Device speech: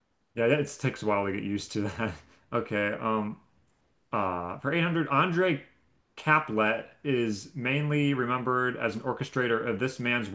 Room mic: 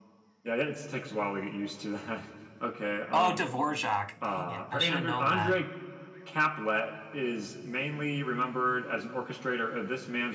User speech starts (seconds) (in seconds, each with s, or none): 3.1 s